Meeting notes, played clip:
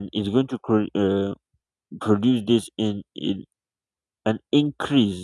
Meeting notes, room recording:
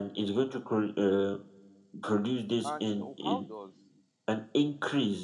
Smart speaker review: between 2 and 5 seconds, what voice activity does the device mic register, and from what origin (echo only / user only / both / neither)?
both